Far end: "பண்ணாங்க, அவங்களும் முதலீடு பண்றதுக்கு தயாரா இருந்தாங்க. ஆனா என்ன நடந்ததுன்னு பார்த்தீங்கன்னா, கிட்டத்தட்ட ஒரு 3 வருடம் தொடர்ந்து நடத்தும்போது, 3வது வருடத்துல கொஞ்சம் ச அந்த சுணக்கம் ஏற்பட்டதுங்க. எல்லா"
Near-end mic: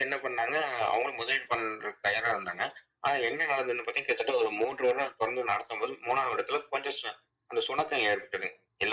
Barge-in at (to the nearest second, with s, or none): none